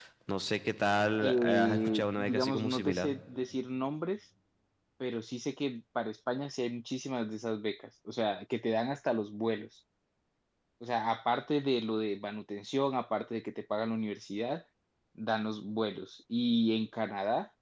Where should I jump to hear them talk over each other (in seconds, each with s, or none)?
1.2 s